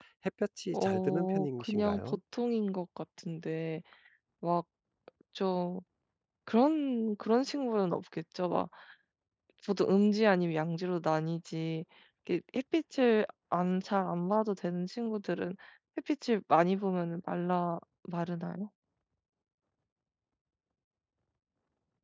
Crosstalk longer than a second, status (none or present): present